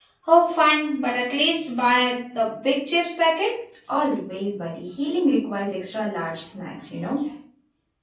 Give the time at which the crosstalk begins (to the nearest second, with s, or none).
none